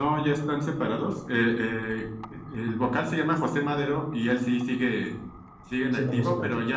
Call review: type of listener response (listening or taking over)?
listening